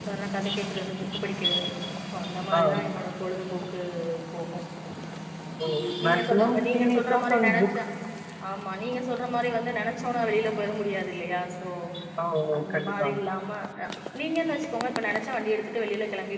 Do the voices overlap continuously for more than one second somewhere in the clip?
Yes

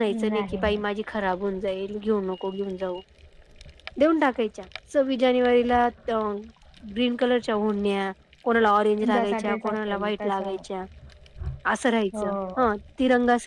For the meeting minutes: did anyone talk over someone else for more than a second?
Yes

